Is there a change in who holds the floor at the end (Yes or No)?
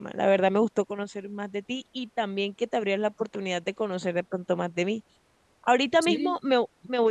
No